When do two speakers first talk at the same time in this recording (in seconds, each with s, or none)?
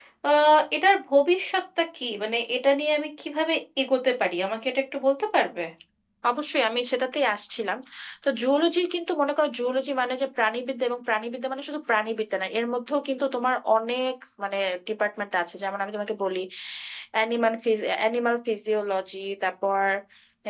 none